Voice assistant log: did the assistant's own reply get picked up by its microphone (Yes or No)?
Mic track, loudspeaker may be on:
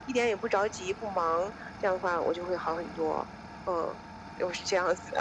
Yes